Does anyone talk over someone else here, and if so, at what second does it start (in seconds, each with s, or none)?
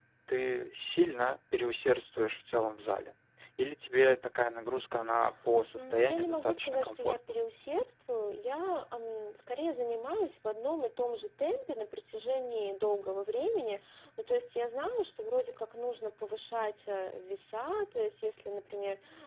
5.8 s